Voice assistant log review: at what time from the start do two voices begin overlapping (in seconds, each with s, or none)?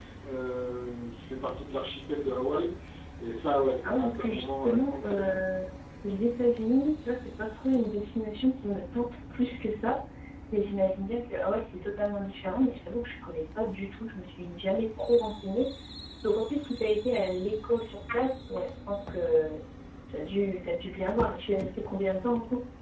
3.8 s